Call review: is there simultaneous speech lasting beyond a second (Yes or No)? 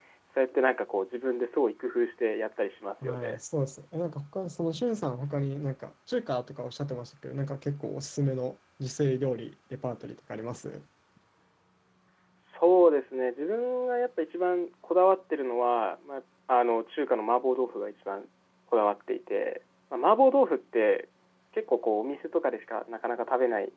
No